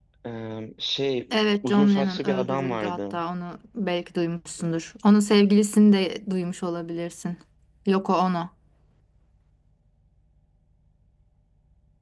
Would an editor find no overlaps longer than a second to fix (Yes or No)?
No